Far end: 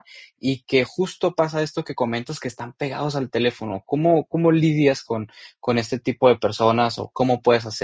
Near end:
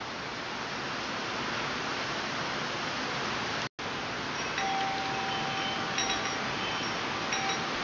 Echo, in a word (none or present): none